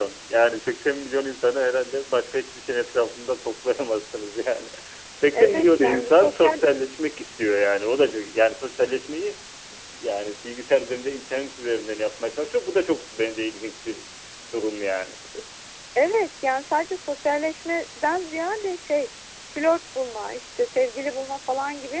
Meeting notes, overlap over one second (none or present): present